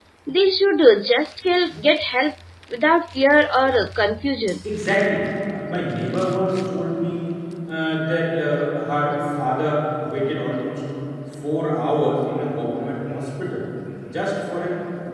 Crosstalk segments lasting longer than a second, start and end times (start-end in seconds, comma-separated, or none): none